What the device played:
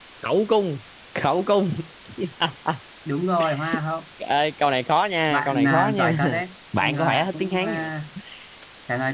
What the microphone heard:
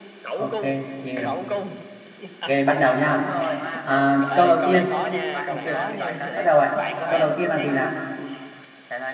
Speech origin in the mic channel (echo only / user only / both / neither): both